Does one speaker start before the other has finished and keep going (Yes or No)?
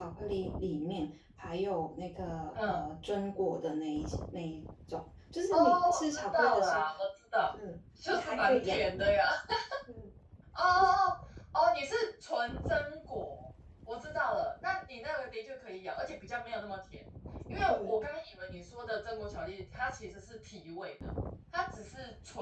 Yes